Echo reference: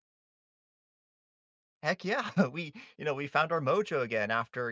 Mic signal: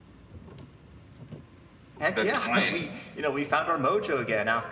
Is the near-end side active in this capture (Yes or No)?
Yes